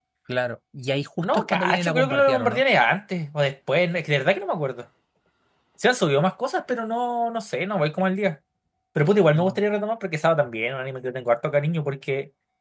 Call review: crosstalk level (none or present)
present